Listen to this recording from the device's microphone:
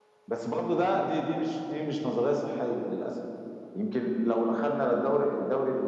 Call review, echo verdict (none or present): none